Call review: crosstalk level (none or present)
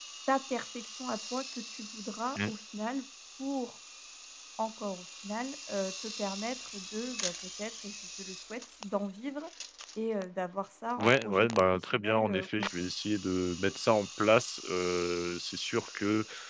present